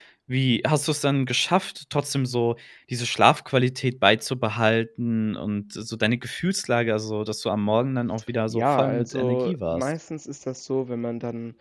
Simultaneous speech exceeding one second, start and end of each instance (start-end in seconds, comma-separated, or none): 8.5-9.9